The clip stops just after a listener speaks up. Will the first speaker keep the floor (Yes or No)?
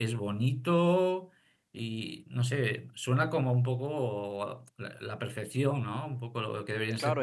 No